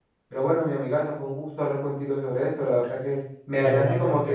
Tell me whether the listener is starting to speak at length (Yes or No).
No